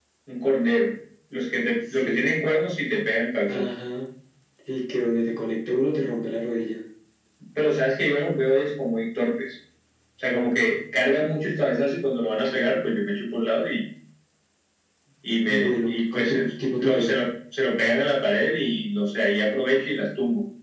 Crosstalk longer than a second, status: present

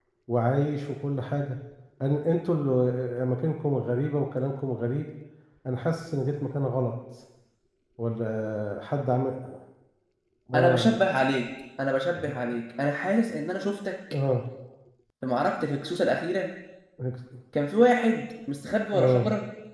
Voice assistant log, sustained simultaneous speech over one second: none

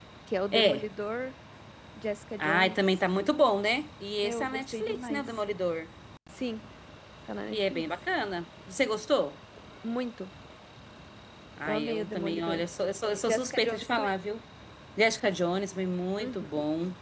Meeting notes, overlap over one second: present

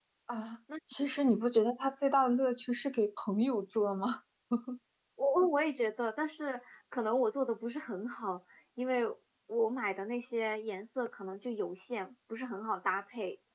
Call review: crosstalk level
none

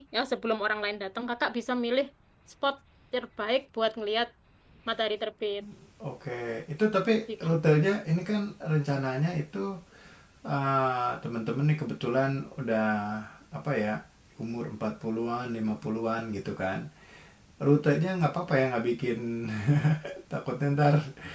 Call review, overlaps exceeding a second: none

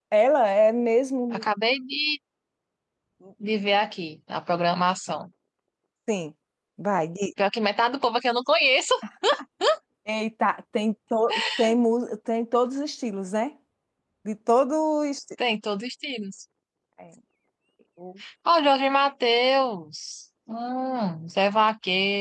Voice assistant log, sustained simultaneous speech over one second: none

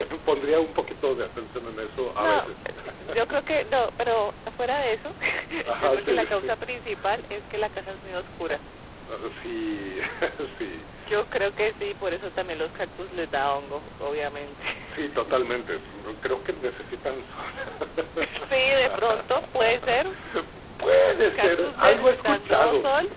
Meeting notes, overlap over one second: present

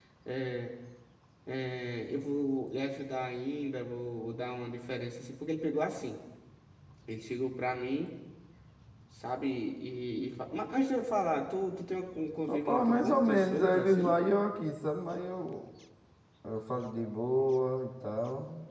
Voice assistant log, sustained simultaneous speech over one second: present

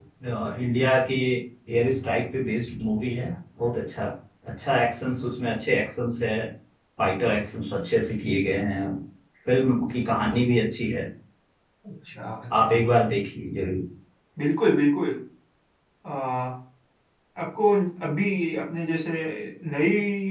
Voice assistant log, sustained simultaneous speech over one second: none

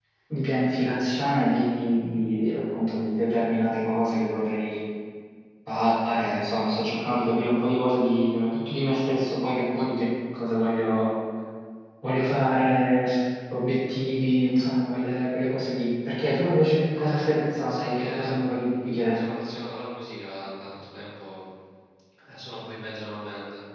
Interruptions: present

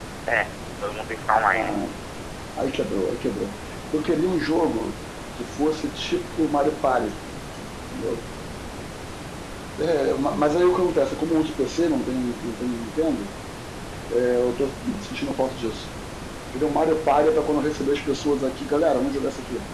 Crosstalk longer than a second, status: none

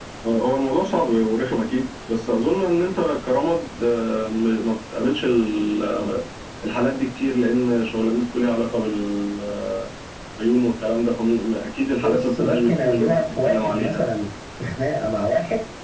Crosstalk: present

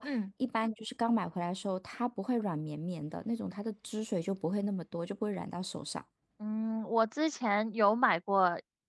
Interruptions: none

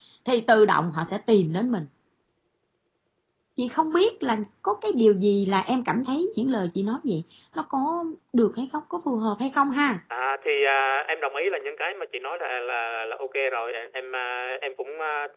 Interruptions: none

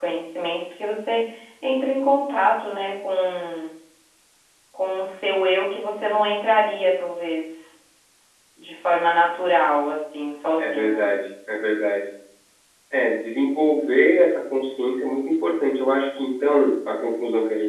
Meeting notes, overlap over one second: none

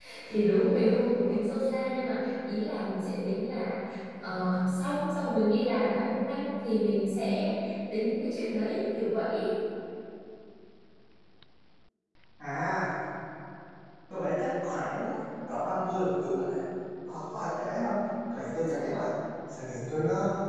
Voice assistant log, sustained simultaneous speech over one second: none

